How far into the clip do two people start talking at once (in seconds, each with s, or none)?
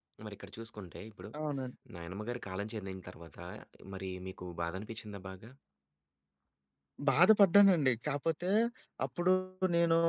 none